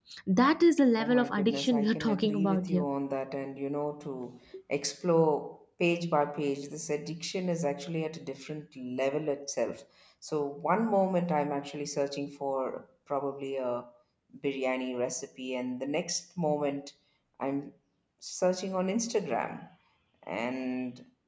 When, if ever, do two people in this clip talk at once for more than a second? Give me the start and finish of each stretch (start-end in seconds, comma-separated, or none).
1.0-2.9